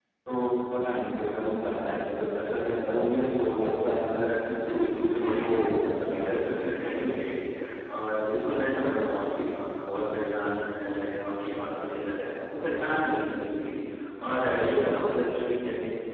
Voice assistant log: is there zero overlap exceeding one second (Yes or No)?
No